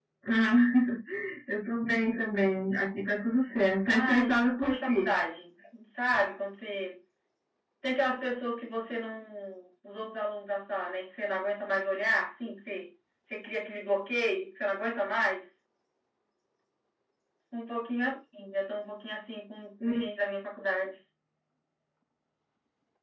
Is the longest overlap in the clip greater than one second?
Yes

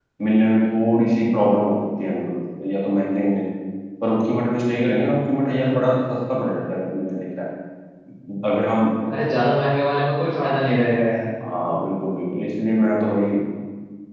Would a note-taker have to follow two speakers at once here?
No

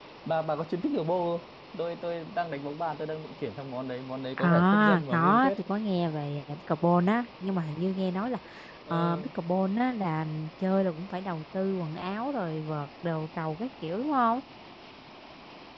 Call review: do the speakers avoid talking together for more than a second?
No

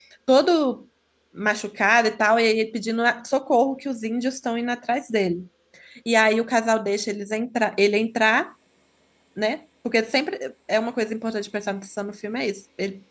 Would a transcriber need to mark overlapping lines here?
No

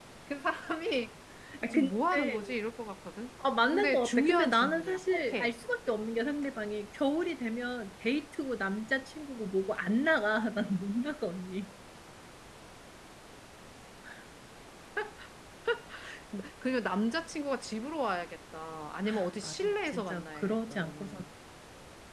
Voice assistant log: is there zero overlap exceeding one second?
No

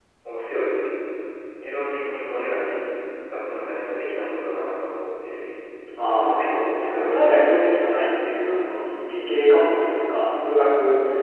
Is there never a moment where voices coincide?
No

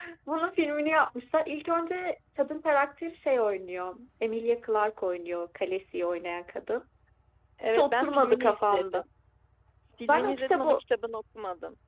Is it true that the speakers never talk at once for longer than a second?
No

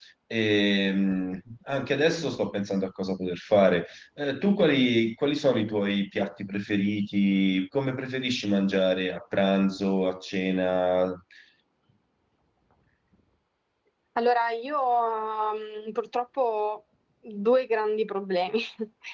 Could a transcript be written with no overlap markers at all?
Yes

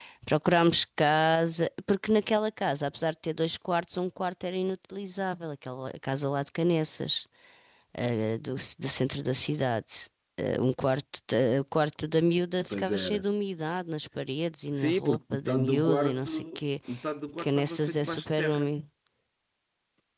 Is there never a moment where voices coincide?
No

